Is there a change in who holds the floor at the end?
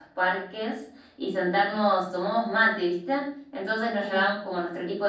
No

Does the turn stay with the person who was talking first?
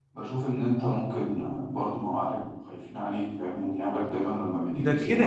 No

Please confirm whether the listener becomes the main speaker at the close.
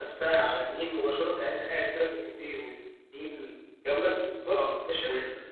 Yes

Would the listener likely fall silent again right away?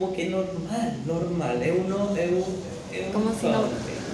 No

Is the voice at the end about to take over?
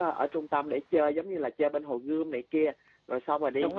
No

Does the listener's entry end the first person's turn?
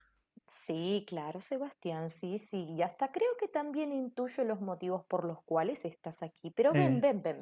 No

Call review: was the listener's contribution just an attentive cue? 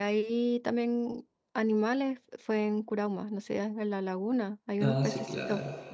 No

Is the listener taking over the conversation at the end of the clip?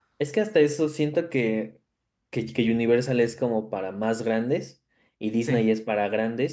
No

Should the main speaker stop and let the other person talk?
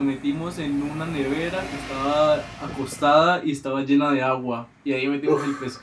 No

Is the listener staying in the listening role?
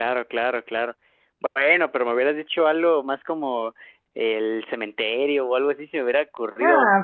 No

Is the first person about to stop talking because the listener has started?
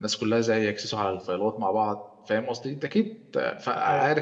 Yes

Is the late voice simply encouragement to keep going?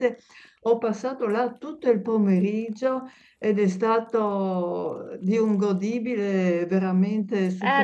No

